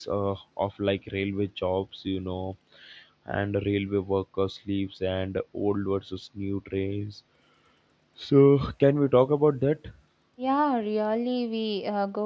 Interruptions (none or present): none